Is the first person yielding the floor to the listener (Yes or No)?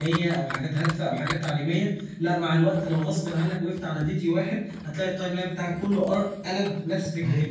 Yes